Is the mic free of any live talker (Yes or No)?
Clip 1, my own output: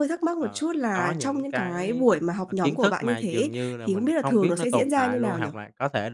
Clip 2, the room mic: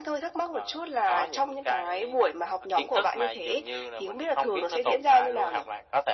Yes